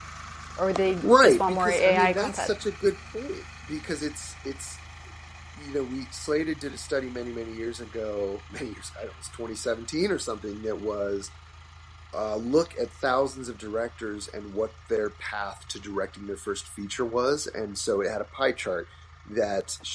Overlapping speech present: Yes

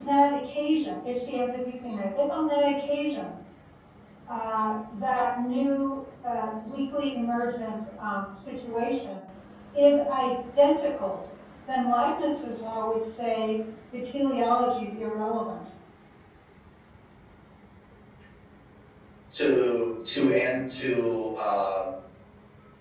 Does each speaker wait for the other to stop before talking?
Yes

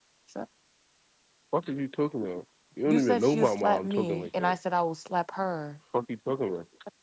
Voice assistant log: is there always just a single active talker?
No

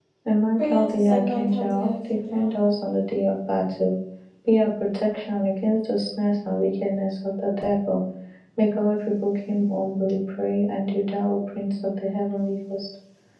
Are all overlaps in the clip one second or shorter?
No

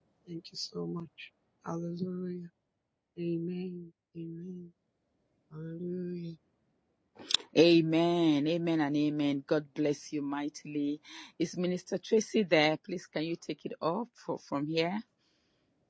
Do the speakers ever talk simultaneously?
No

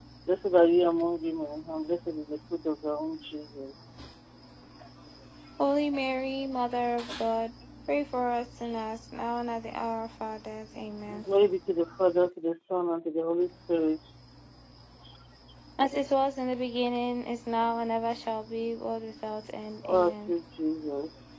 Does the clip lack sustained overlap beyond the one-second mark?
Yes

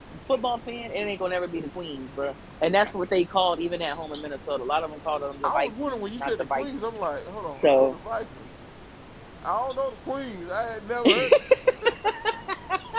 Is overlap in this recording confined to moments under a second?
No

